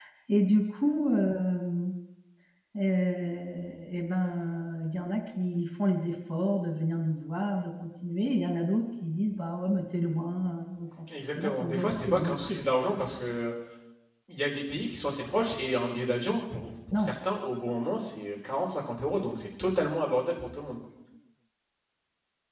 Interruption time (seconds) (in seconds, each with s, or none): 11.3 s